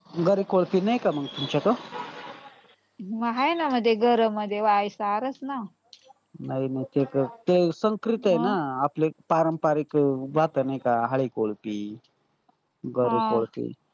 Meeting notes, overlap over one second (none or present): none